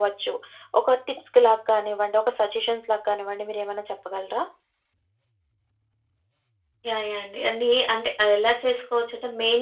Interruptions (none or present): none